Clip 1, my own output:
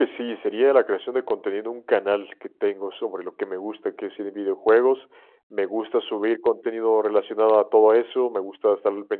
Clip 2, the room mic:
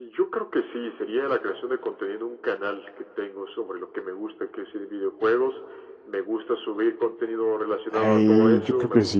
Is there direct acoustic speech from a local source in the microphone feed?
Yes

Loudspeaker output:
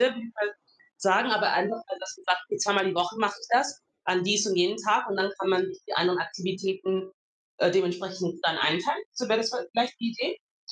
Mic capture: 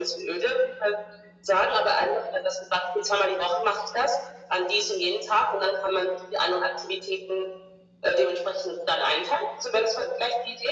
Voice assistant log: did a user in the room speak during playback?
No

